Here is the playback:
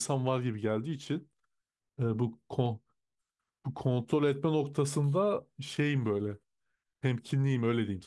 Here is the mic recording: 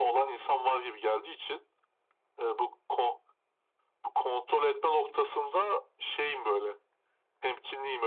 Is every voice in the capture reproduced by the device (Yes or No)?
Yes